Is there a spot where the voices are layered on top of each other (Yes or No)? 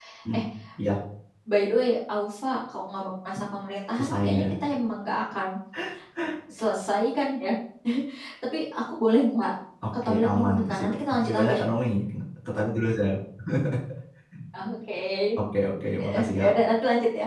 Yes